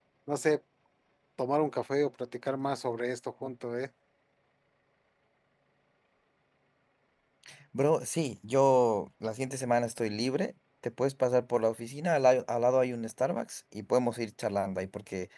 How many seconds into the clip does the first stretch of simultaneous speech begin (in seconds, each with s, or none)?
none